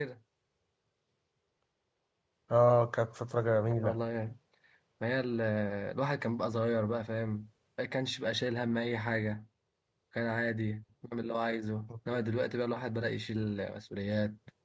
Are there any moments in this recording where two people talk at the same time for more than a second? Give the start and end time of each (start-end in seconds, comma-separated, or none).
none